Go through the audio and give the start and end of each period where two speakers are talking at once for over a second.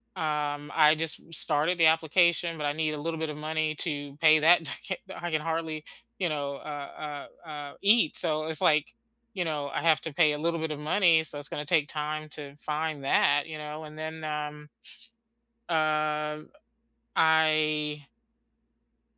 none

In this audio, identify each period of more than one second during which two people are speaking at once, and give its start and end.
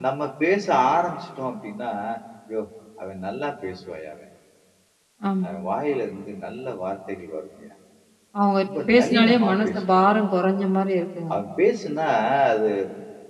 8.6-10.1

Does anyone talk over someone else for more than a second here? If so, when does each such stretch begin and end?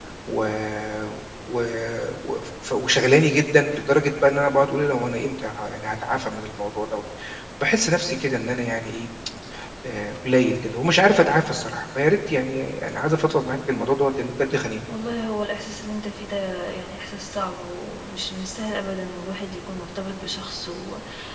none

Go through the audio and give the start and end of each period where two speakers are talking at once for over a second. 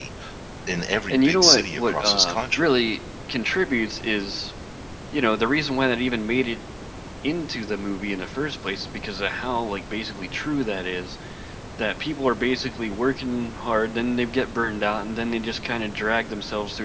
1.1-2.7

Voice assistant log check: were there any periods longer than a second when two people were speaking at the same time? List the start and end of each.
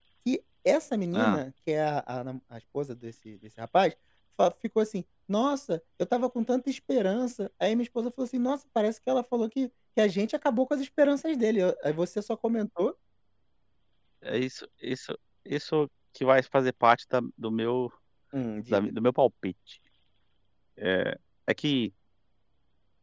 none

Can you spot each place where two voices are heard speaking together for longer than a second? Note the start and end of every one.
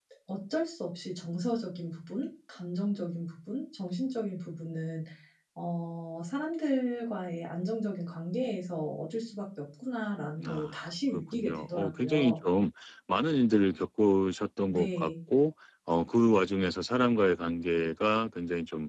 10.5-12.3

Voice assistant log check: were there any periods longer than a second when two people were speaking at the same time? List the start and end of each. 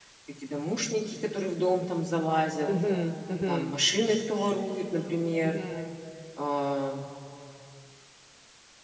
none

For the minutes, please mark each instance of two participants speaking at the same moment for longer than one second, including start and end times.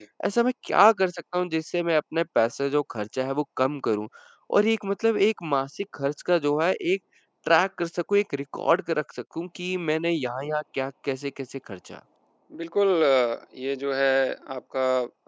none

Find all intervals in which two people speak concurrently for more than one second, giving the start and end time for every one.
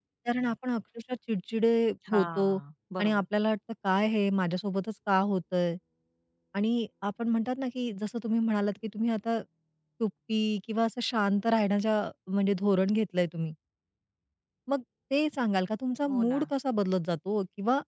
none

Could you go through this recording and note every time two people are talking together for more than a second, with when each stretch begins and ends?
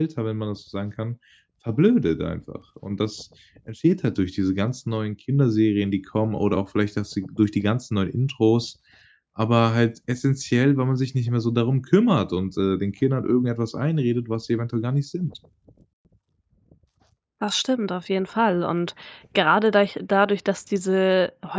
none

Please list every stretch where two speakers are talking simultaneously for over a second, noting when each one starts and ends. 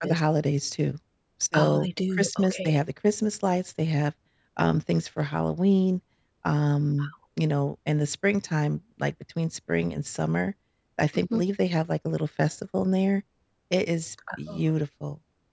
1.5-2.8

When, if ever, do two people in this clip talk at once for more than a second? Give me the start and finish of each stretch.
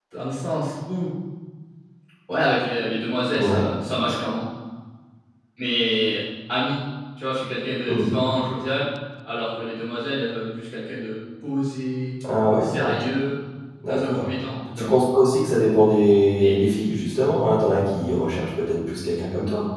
none

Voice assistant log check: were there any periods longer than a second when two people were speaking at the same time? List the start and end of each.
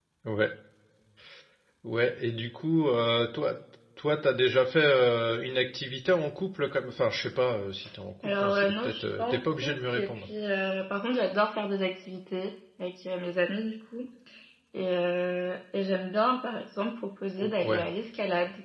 8.2-10.2

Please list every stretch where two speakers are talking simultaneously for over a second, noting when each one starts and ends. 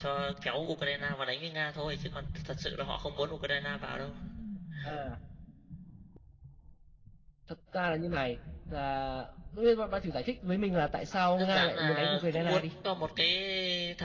11.4-12.6

